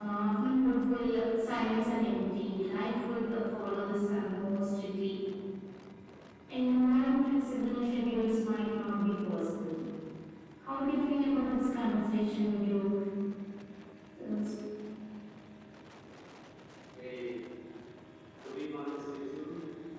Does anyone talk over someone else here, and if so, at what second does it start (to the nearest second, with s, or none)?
none